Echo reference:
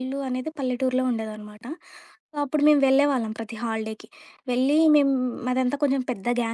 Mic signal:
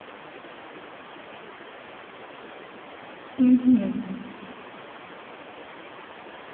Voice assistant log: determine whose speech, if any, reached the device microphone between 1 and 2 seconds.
neither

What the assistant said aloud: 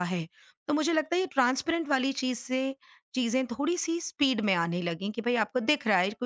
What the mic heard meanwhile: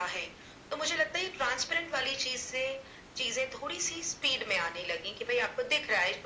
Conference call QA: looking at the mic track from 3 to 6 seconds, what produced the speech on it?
echo only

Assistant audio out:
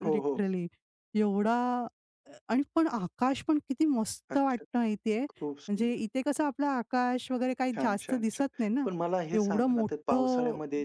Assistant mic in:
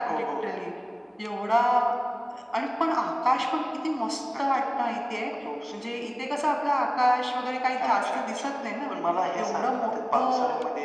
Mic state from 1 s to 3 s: echo only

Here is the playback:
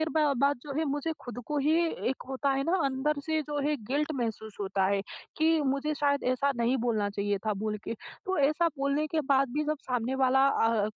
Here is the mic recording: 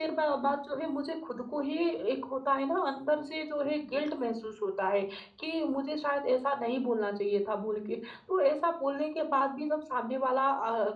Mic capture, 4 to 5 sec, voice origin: echo only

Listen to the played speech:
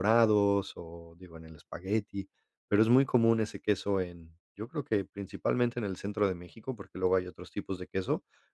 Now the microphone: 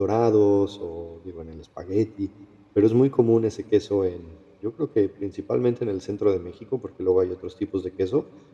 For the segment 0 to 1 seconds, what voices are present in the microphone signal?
echo only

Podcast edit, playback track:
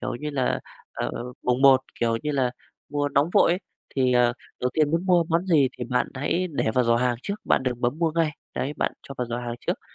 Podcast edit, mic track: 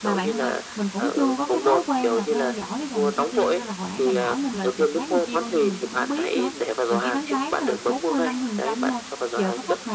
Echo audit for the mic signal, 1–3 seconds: both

